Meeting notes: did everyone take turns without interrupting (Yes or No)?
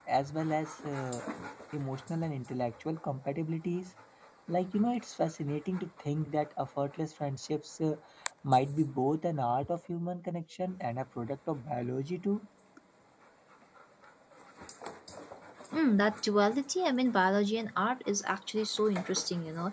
Yes